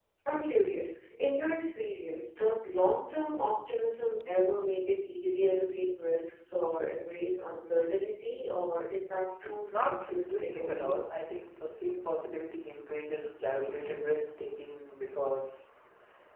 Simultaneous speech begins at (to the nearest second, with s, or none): 10 s